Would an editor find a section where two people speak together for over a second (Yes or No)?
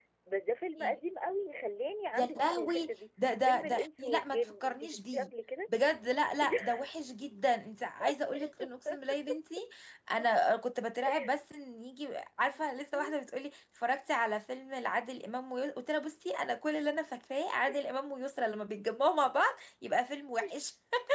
Yes